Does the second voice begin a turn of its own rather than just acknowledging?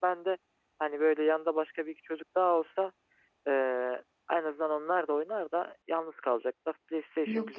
Yes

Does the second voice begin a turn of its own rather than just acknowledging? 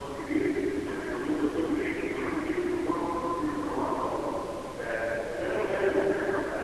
Yes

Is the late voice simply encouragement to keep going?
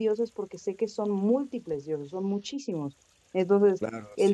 No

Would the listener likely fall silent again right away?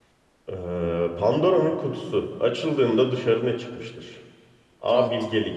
Yes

